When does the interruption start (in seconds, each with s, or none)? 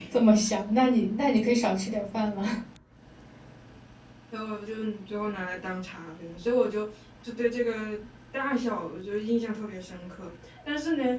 none